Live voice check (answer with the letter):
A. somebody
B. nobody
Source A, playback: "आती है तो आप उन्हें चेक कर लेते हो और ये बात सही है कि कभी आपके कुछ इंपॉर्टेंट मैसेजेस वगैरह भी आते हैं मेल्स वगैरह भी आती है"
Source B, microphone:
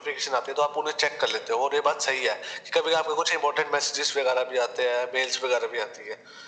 B